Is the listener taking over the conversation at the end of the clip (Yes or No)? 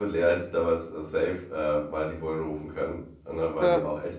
No